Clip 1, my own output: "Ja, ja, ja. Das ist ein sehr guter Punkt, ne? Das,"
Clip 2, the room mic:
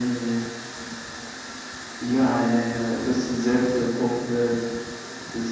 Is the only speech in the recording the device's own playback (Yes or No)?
Yes